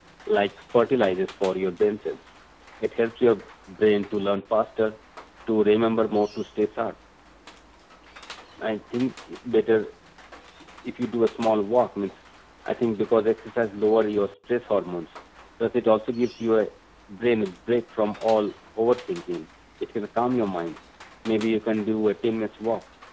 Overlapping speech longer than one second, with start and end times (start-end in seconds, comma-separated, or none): none